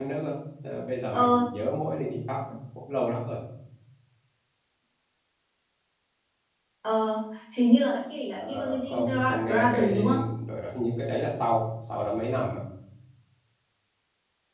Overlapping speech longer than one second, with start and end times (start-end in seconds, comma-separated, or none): 8.4-10.2